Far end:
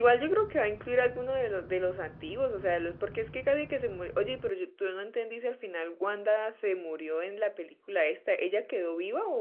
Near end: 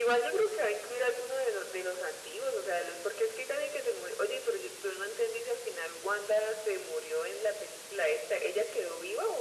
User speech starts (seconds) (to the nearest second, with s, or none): none